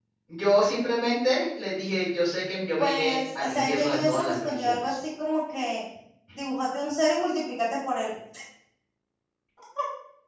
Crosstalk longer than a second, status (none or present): present